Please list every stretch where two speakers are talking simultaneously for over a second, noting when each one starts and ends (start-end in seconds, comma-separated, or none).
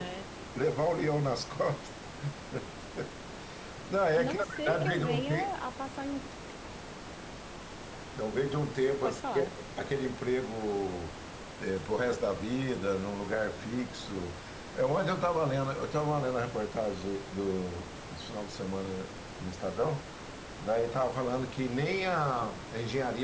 4.1-5.5